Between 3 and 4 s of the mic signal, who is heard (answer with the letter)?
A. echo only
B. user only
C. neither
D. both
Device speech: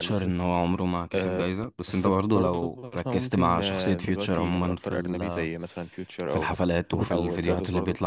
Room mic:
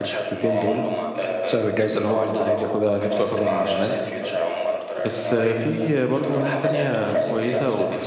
D